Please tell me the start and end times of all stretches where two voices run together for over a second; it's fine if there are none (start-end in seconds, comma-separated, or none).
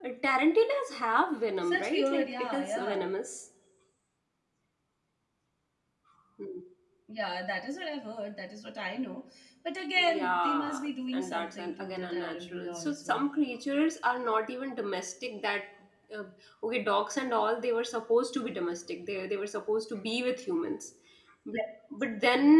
1.6-3.0, 10.0-13.2